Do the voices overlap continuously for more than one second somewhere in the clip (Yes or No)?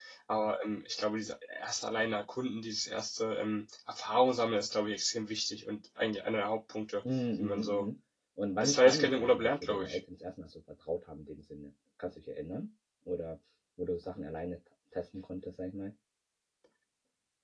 Yes